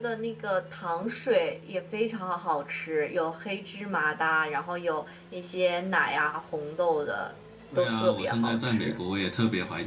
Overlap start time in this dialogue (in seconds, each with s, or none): 7.7 s